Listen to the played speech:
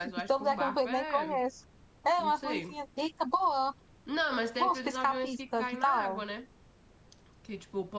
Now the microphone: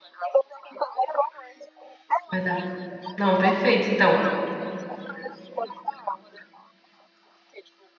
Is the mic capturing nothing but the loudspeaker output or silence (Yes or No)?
No